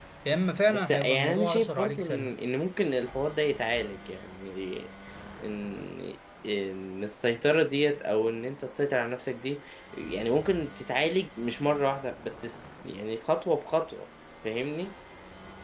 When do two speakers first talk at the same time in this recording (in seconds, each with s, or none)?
0.7 s